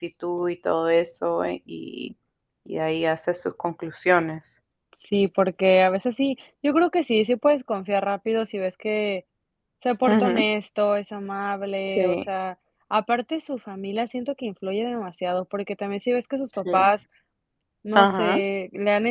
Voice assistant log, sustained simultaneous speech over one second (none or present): none